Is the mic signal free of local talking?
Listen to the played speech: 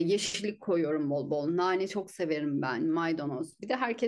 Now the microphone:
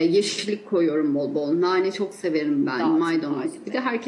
No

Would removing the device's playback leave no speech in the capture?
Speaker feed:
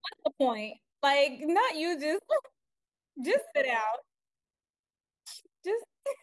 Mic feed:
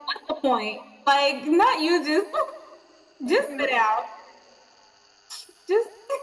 No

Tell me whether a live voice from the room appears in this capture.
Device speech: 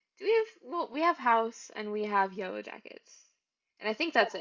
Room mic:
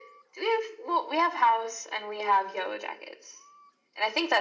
No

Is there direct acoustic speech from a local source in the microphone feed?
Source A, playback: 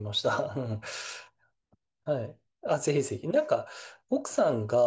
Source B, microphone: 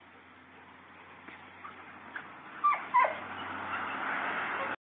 No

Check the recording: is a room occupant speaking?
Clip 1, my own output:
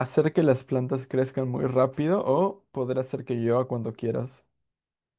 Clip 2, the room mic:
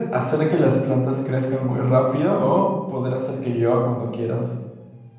No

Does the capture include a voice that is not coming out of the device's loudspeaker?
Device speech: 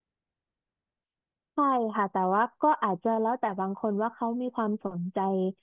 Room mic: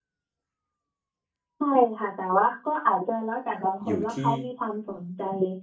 Yes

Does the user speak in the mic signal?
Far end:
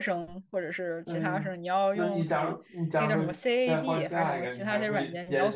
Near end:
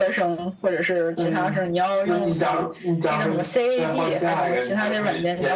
No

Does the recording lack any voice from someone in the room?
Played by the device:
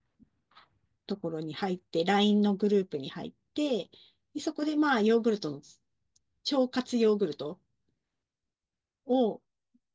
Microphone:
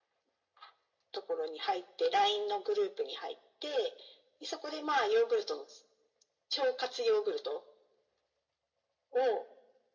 Yes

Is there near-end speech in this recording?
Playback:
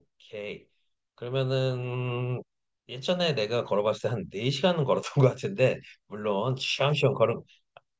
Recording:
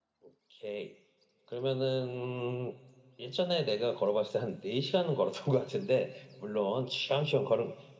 No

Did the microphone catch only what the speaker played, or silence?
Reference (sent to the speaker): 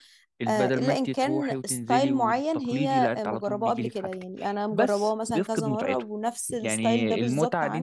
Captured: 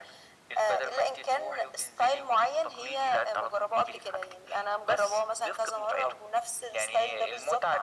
Yes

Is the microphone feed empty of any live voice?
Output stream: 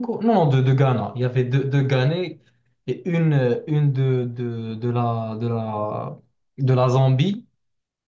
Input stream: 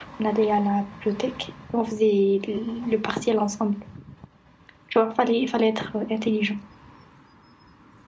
No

